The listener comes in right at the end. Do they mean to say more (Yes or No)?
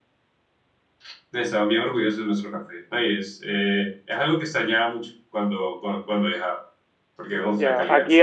Yes